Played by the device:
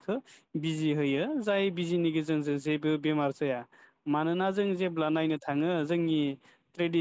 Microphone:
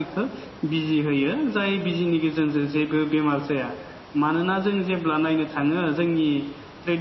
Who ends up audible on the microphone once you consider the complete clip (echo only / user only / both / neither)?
echo only